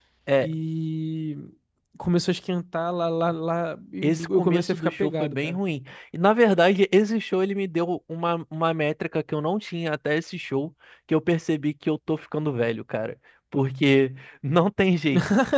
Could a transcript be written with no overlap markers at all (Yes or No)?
No